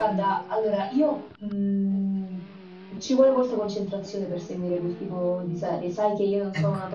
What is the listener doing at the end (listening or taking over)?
listening